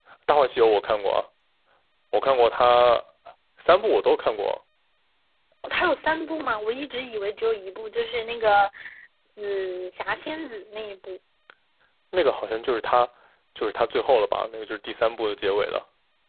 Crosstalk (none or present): none